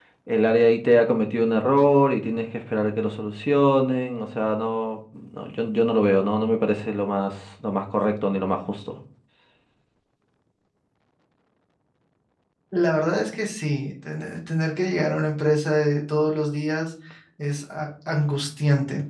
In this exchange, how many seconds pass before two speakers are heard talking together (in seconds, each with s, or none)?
none